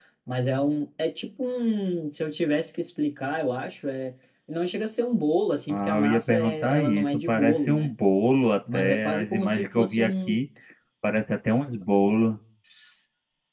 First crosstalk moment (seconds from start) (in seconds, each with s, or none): 5.7 s